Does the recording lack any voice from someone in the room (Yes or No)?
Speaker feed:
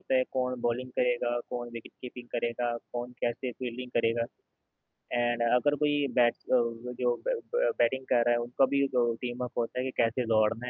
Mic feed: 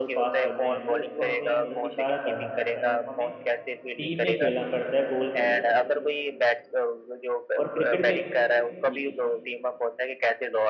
No